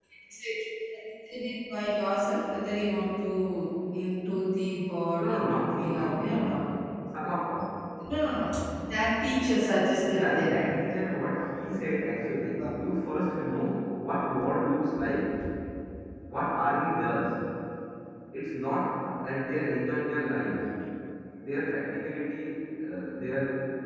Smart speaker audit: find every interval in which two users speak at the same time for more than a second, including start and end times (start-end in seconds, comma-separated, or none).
5.2-6.6